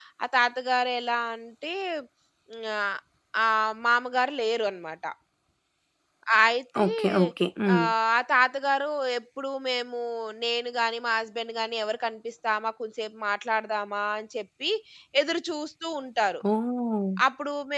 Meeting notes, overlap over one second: none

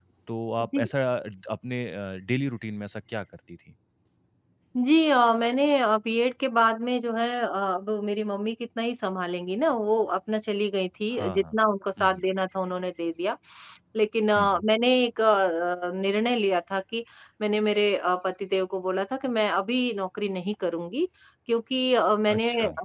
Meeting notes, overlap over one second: none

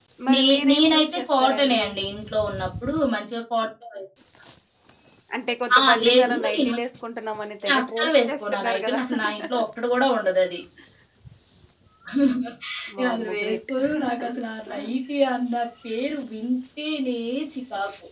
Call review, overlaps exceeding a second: present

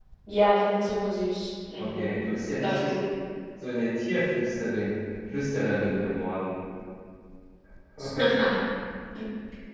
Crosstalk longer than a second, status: none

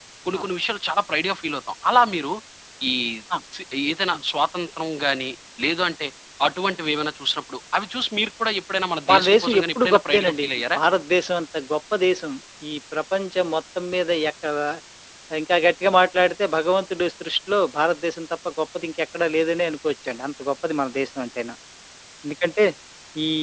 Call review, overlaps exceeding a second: present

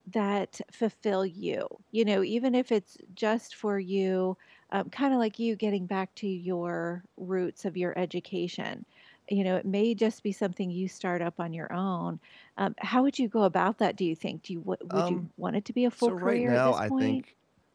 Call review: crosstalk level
present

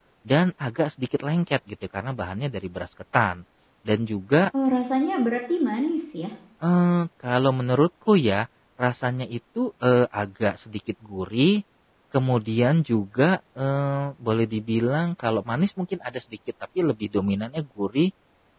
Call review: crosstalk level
none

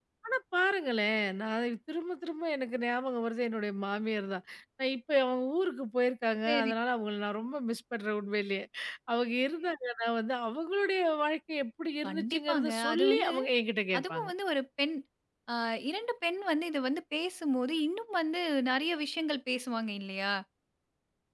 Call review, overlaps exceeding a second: present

